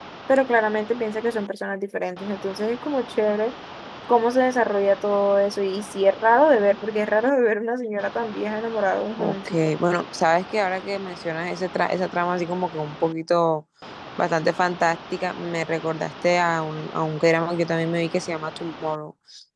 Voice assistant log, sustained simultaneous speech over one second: none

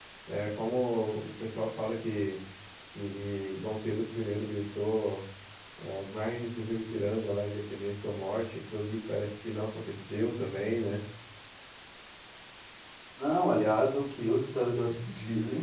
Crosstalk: none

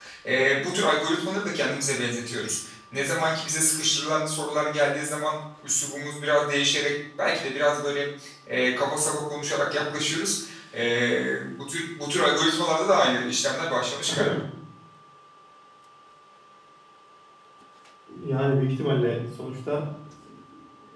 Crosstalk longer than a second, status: none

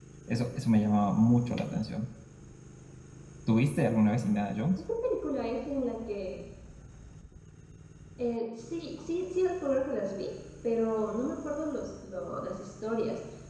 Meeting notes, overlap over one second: none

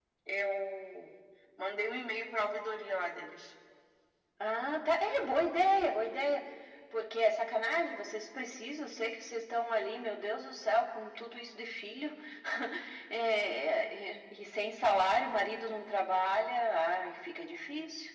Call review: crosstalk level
none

